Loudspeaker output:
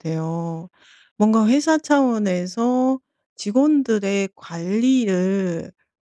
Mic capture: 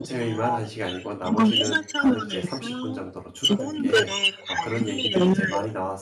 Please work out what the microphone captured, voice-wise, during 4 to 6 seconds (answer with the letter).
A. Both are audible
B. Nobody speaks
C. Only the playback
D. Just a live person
A